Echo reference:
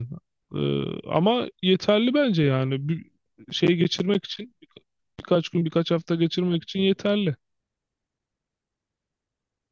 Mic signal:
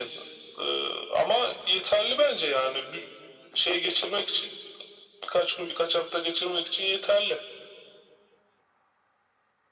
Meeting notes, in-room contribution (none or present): none